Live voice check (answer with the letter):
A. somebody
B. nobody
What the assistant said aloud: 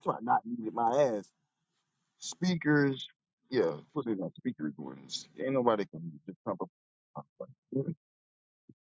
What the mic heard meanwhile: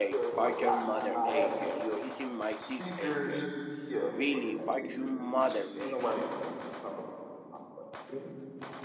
A